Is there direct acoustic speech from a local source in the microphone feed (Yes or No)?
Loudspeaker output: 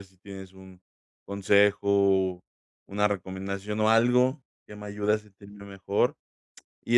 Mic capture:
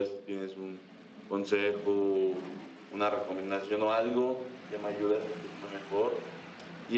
No